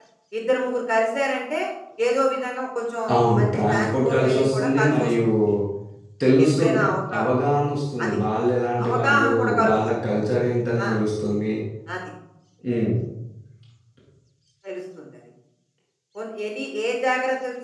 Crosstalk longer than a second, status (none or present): present